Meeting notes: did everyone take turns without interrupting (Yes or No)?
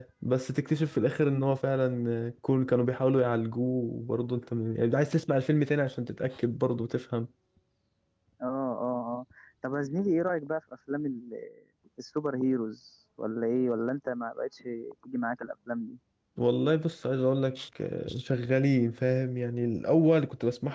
Yes